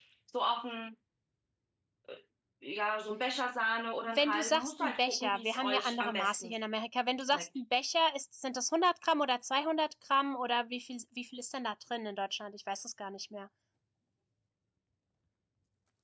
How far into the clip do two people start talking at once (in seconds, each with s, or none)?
4.1 s